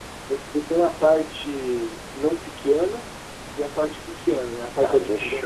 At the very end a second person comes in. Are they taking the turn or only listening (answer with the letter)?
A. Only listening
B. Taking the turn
B